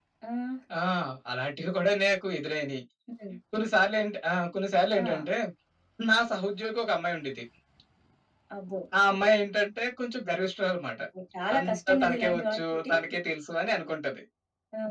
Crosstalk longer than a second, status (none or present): present